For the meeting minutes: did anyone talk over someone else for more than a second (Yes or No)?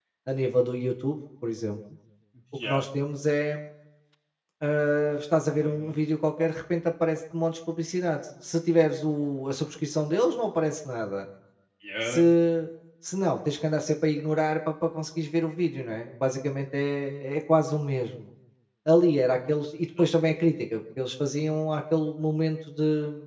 No